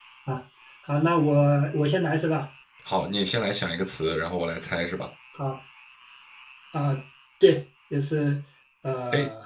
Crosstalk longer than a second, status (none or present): none